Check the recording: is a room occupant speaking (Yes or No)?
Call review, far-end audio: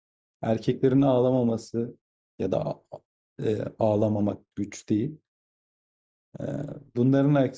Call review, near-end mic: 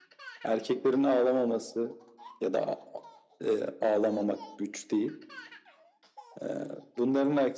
No